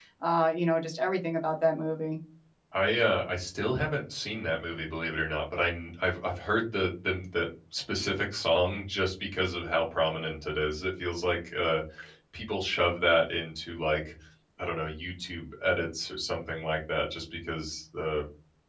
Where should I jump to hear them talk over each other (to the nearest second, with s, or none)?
none